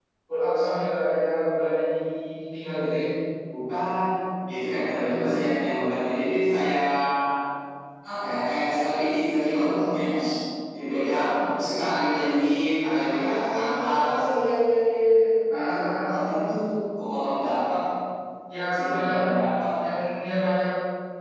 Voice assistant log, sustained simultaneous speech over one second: present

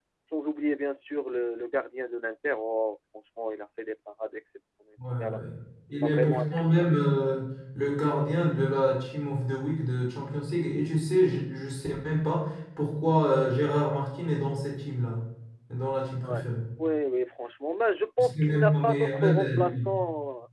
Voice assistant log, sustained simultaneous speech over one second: present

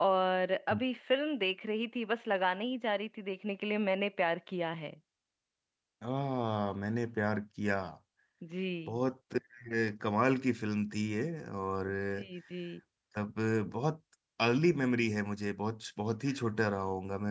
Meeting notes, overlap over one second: none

